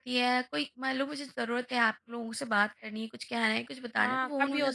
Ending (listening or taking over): taking over